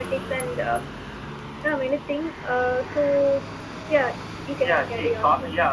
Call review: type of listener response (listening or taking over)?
taking over